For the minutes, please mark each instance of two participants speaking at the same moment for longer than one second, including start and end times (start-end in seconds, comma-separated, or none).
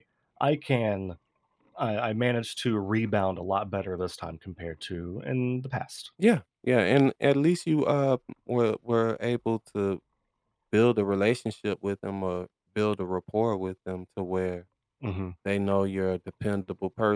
none